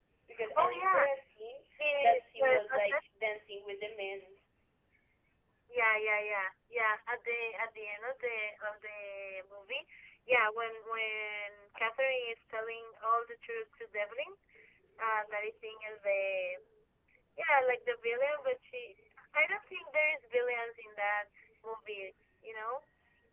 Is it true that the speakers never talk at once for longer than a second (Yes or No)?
No